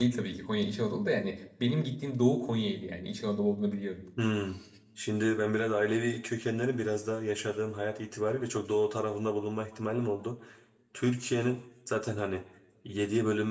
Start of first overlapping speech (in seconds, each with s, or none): none